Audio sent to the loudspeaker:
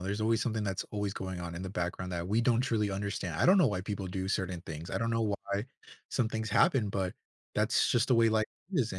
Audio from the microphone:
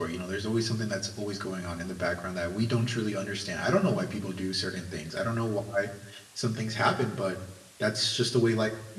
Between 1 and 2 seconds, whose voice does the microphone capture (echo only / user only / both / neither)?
echo only